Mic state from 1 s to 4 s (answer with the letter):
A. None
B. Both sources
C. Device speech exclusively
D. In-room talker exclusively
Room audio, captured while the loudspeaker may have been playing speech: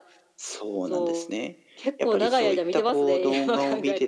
C